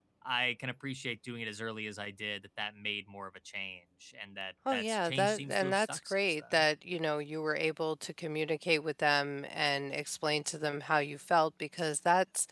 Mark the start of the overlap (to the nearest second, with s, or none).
5 s